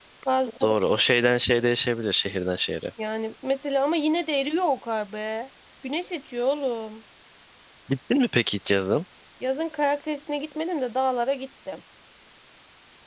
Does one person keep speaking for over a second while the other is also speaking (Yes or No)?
No